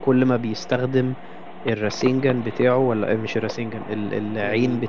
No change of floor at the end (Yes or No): Yes